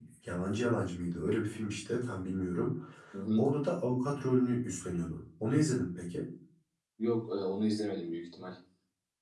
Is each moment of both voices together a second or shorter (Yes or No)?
Yes